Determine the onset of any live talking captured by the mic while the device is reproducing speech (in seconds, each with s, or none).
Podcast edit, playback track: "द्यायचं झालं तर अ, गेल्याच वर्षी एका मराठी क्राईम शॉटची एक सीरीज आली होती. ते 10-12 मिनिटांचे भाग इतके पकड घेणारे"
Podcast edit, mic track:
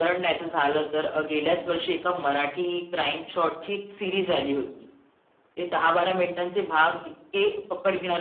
none